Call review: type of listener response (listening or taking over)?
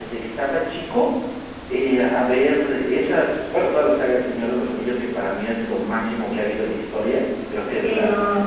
taking over